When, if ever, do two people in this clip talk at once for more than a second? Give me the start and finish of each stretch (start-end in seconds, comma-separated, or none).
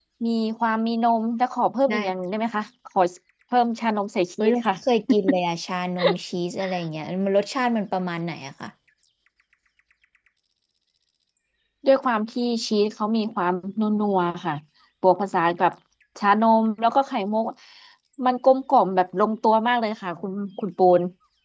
none